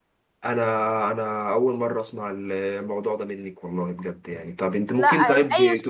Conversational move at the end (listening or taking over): taking over